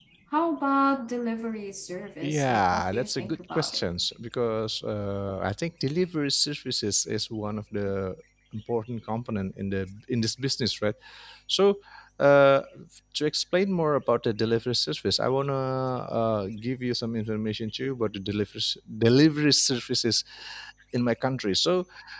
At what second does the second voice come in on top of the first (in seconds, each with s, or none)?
2.2 s